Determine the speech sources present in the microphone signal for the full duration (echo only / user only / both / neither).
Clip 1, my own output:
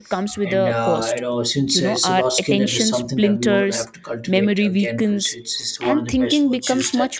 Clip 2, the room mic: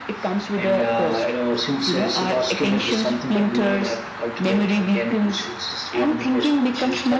echo only